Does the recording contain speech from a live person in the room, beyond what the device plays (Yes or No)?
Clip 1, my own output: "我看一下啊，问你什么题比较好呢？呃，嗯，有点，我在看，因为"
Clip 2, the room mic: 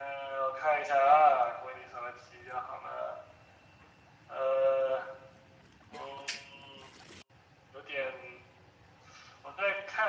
No